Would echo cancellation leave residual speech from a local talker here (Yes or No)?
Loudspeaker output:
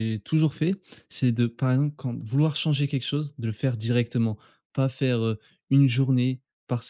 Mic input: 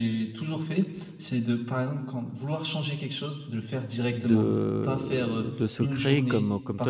Yes